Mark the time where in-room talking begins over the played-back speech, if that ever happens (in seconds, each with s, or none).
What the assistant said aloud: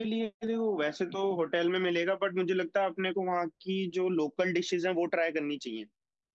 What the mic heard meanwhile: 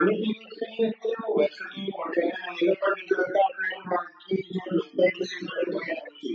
none